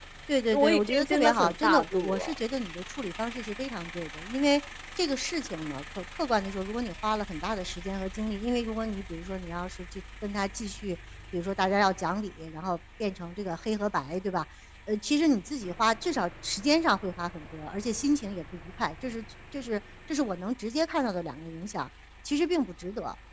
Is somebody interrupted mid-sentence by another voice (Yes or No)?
Yes